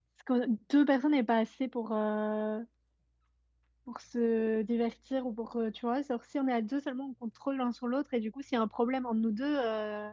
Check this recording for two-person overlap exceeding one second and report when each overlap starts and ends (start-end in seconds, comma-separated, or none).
none